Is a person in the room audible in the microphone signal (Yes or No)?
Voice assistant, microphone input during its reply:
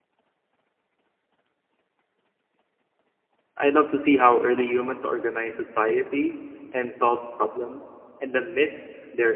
Yes